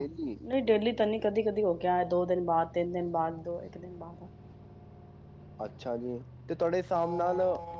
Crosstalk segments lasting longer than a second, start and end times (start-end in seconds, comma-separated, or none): none